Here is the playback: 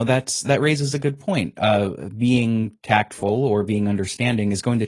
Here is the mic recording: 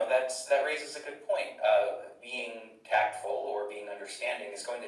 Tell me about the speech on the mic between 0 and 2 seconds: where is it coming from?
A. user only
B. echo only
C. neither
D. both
B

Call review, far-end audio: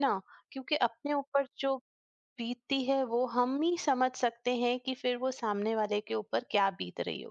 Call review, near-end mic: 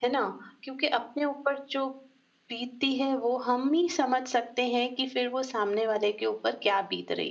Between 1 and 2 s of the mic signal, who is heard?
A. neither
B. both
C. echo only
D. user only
C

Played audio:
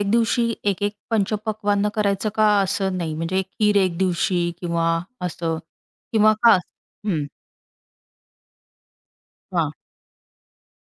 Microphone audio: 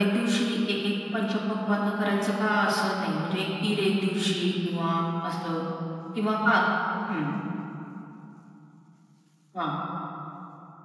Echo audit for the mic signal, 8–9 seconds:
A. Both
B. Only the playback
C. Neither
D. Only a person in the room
C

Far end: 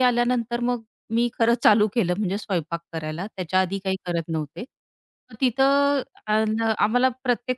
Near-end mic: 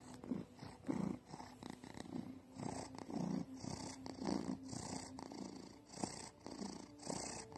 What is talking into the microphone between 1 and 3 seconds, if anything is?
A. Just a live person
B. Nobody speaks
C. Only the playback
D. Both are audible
B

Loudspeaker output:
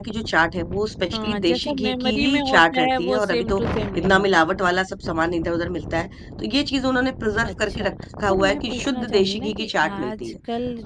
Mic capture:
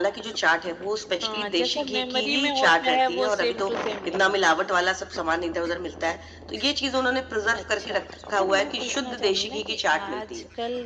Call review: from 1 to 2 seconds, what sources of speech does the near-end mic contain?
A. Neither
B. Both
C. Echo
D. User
C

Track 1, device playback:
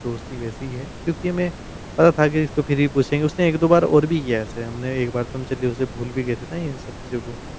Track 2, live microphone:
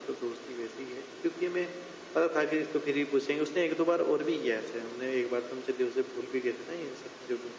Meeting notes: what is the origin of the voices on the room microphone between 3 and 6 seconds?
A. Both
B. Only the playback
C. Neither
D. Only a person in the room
B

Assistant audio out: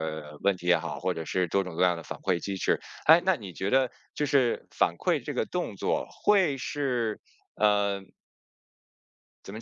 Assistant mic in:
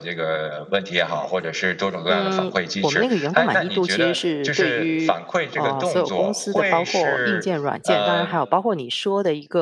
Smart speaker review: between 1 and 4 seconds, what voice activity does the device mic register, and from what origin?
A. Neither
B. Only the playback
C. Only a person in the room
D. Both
D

